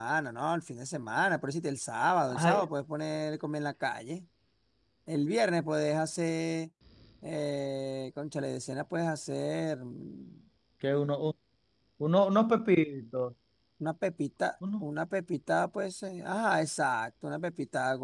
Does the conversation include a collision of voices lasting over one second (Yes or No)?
No